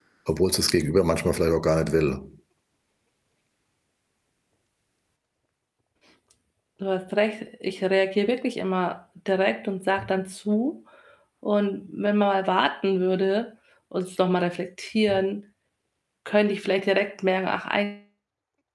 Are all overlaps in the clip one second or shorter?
Yes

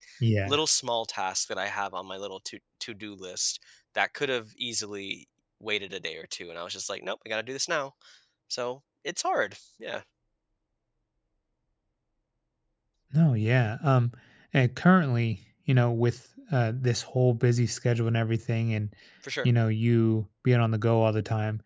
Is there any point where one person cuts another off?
No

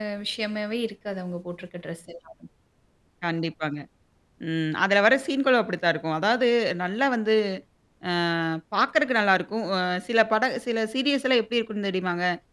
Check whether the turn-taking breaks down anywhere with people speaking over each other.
No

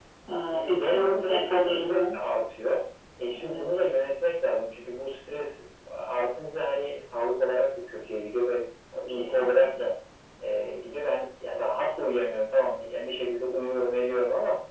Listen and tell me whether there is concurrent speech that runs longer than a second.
Yes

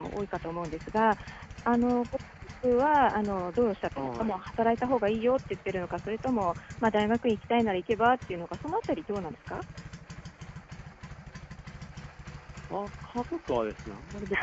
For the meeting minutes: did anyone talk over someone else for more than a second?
No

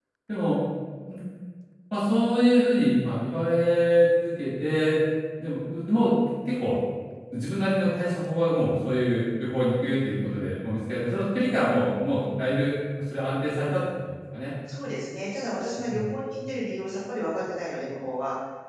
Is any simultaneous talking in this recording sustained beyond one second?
No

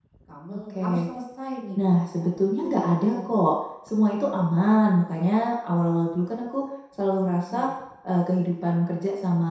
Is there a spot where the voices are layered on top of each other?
Yes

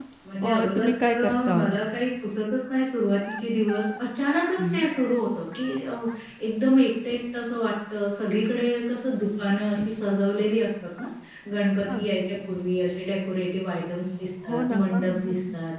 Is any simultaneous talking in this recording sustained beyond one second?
Yes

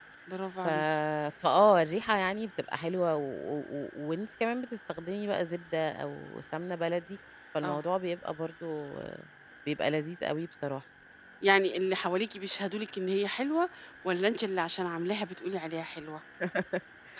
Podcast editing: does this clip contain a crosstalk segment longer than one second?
No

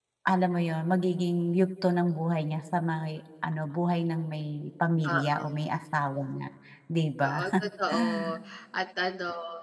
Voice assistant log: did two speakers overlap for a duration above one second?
No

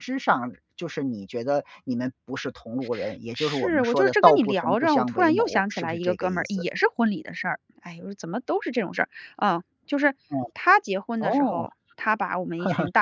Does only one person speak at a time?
No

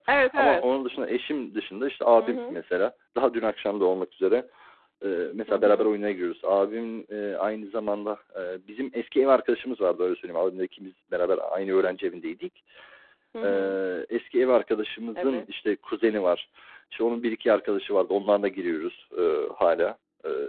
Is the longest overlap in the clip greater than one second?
No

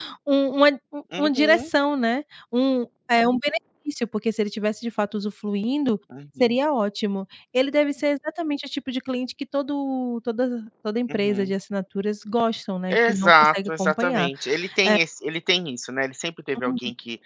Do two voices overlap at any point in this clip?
Yes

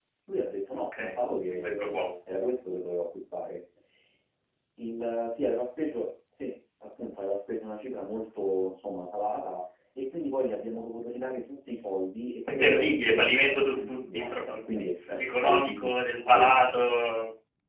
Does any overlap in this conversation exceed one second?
Yes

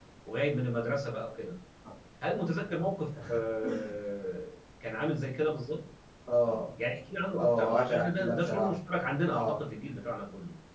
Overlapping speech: Yes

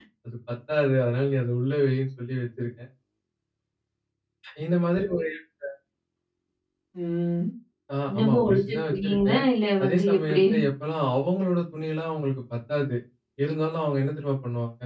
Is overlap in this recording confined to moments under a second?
No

